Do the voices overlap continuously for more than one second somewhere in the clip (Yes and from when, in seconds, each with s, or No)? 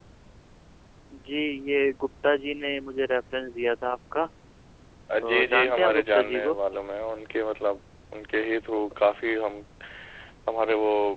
Yes, from 5.2 s